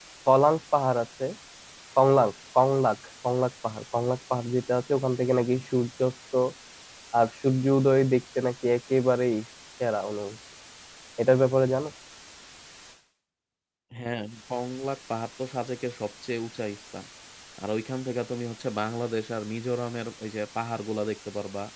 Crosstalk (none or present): none